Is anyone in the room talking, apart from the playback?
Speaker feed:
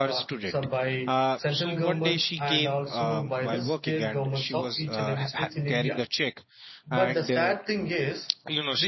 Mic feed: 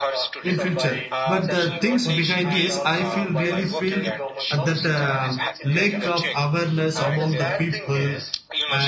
Yes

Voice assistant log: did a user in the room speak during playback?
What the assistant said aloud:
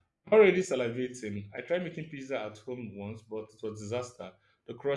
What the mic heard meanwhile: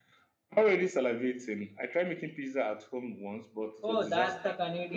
Yes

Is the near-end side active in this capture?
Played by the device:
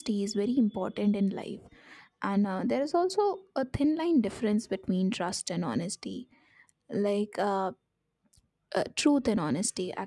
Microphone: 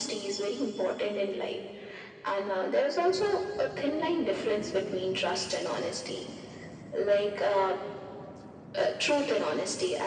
No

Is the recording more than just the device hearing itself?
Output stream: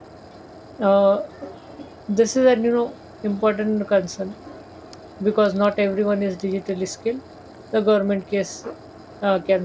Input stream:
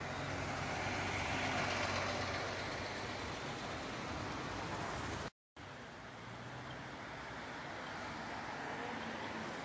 No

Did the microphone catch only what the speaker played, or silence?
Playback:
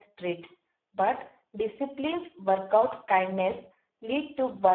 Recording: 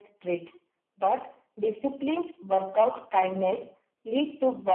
Yes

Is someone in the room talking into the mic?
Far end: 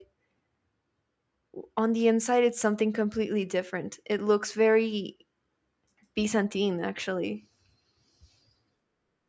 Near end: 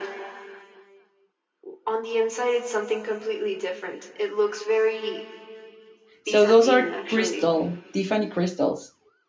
Yes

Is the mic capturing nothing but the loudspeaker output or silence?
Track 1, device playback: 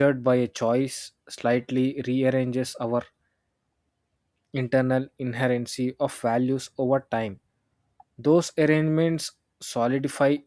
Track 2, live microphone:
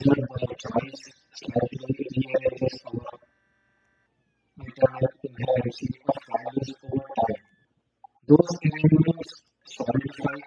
Yes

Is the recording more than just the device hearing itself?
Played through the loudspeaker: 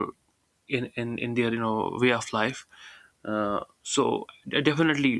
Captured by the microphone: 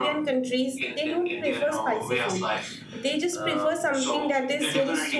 Yes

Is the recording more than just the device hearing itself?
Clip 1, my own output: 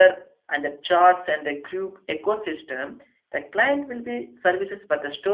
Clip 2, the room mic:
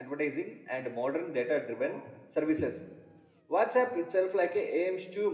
Yes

